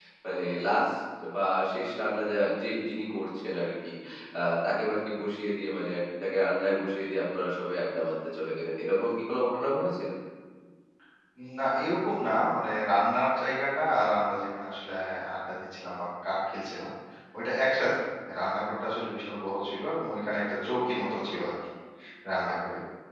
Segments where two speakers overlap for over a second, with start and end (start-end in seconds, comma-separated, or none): none